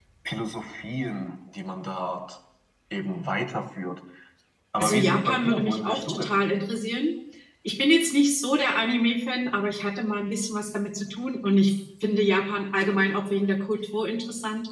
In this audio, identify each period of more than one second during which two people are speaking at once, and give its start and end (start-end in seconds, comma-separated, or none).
4.8-6.4